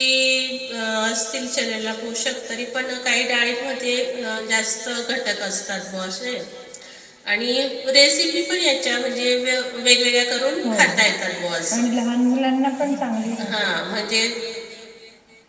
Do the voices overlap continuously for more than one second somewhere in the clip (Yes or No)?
No